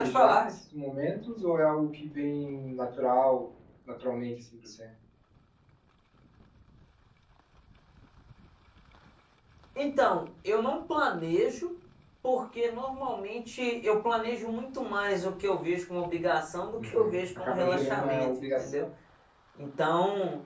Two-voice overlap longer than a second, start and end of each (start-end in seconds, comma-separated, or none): 16.8-18.9